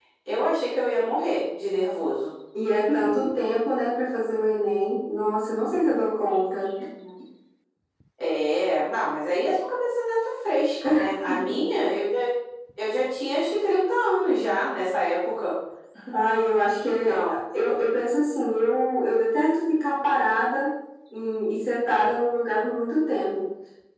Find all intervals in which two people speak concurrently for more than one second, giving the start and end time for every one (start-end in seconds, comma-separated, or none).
none